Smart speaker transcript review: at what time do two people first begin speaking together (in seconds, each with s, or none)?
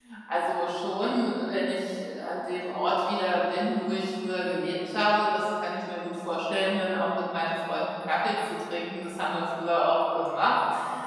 none